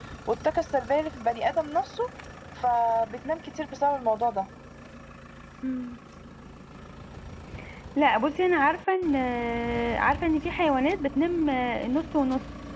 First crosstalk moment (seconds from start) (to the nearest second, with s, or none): none